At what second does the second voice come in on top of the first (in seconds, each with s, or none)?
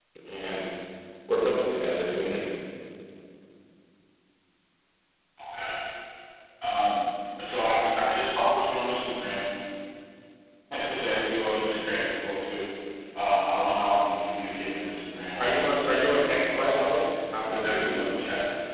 15.4 s